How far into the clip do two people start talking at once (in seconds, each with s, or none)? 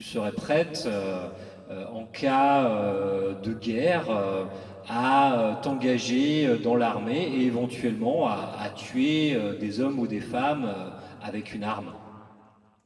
none